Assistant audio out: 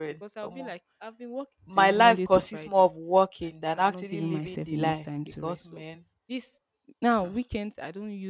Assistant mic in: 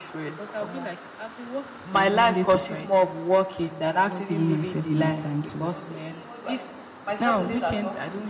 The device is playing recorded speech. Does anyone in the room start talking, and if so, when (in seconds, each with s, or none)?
5.6 s